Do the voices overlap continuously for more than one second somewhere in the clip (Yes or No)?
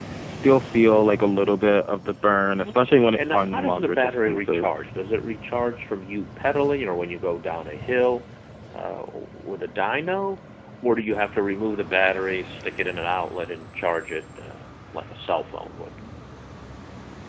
Yes